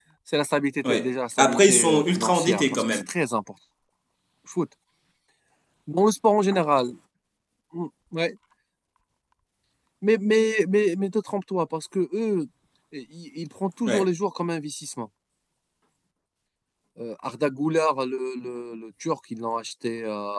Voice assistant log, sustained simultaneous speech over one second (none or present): present